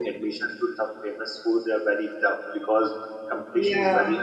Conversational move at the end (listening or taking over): listening